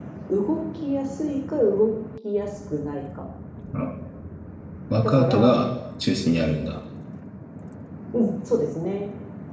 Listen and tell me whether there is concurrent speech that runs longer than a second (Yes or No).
No